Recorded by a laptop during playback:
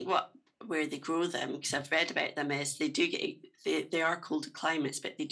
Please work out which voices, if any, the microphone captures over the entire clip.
echo only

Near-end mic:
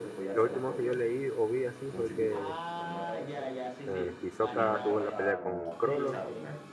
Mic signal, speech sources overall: both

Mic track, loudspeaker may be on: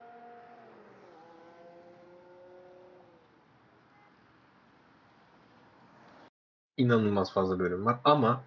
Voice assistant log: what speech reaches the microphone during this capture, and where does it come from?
user only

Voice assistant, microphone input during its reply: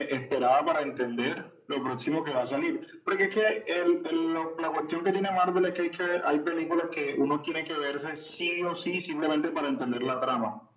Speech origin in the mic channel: echo only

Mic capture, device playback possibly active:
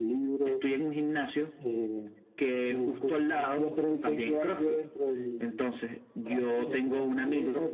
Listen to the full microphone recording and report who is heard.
both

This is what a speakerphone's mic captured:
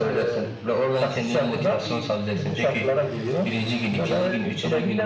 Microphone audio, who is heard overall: both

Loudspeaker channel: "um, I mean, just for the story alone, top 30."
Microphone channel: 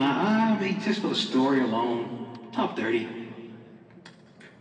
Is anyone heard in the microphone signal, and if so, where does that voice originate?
echo only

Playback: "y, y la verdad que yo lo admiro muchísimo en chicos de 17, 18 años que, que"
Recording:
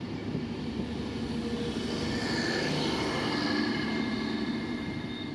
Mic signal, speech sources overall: neither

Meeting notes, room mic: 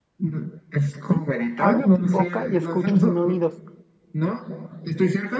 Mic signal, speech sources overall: both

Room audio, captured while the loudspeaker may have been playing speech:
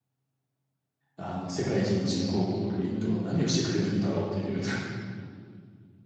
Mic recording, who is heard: user only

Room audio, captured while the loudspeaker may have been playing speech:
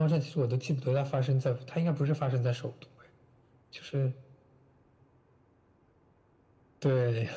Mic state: echo only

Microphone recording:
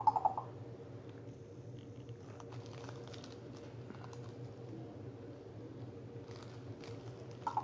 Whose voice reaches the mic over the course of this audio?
neither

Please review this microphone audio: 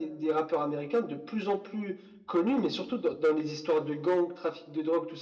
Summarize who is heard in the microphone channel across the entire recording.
echo only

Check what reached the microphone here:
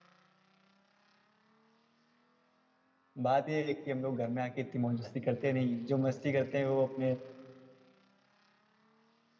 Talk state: user only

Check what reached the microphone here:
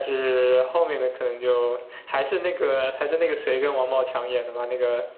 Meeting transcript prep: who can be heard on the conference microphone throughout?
echo only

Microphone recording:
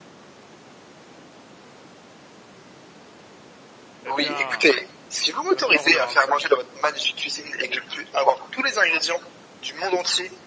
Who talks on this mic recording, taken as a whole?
both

